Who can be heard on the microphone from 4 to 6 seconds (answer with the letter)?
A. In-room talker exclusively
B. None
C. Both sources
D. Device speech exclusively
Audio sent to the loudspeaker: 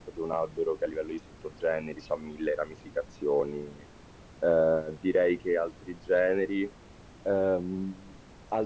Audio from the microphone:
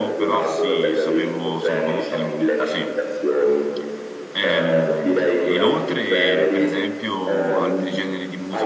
C